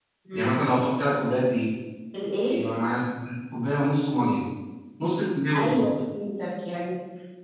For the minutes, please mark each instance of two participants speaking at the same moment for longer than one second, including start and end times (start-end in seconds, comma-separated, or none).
none